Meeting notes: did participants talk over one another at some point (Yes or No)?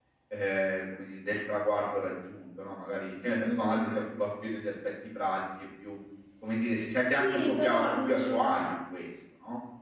Yes